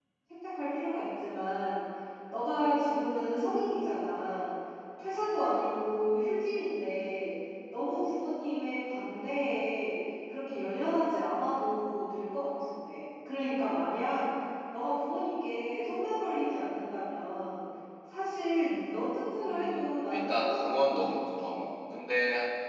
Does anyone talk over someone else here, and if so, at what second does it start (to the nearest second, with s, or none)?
19 s